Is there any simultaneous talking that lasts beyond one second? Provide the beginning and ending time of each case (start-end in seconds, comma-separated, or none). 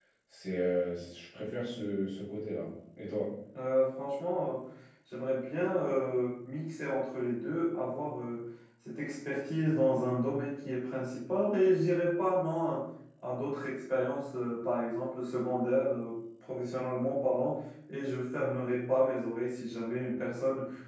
none